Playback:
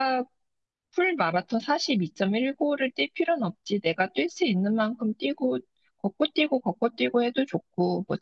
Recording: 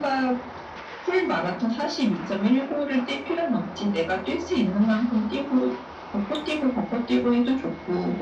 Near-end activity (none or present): none